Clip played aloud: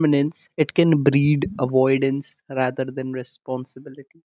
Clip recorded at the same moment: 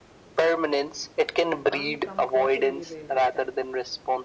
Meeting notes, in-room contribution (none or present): present